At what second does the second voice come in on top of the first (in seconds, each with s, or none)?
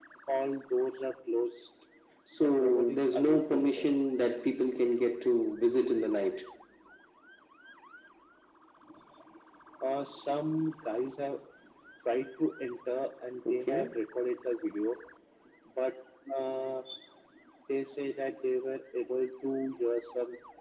2.4 s